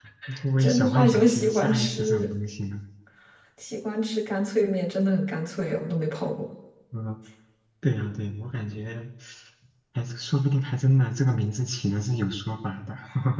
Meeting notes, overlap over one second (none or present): present